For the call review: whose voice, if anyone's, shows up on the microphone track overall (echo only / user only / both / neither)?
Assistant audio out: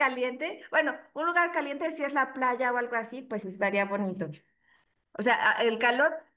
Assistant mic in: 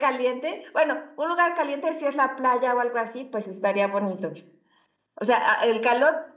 echo only